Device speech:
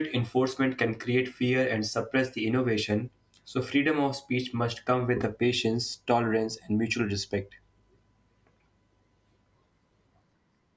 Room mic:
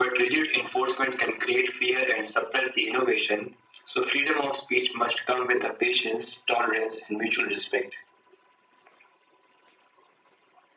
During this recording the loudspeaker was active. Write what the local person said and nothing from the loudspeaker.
none

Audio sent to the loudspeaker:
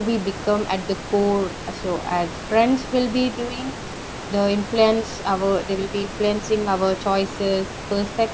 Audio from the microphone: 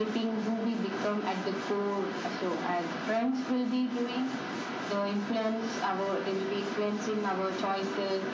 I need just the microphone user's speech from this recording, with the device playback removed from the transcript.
none

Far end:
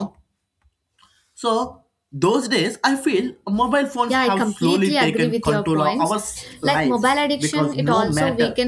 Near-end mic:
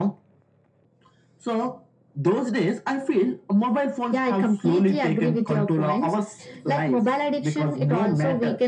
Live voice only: none

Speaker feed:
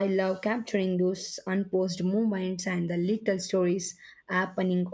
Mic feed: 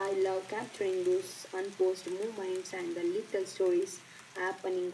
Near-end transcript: none

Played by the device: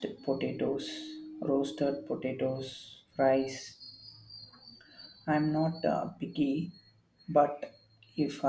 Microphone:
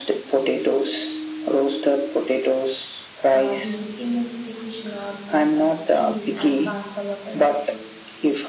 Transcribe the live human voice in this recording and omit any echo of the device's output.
Uh, the emulsification of the cheese and pasta water is key.

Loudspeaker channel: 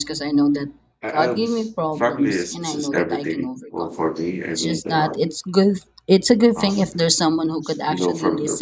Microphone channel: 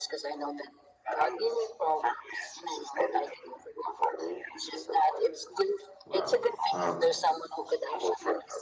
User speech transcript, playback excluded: Wow. Um,

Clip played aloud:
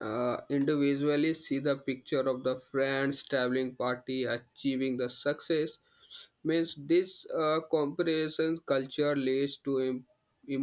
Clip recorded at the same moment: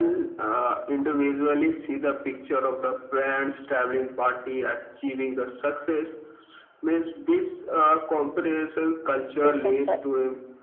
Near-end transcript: to someone

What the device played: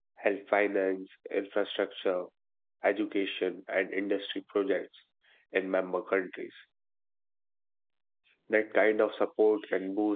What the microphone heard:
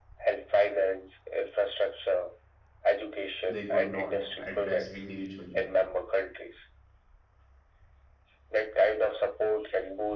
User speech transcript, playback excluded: they could not address individually.

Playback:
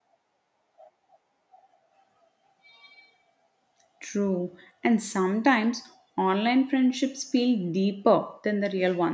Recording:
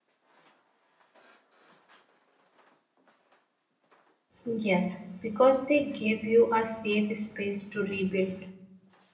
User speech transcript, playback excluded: Yes, because they give you a safe space to rebuild.

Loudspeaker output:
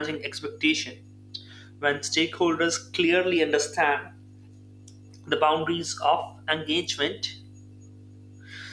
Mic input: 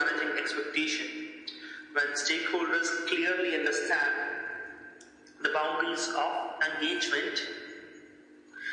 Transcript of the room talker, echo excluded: none

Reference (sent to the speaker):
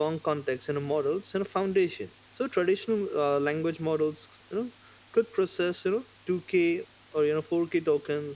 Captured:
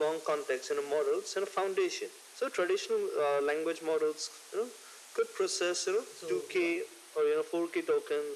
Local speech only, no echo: so you know

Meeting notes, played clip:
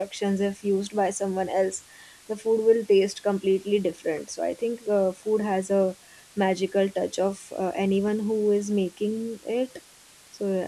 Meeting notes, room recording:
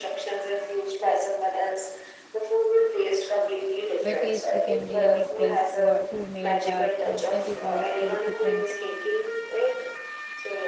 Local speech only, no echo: by taste we can really guess what, who made that and that is also a different

